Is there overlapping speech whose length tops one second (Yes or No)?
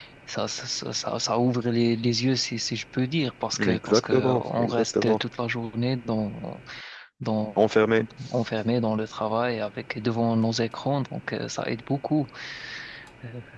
Yes